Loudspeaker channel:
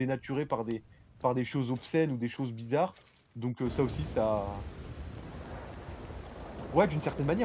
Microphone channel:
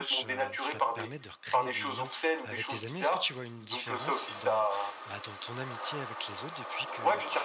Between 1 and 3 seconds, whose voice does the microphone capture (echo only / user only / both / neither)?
both